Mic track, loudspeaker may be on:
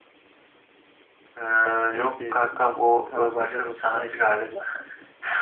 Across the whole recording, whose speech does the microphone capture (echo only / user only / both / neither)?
both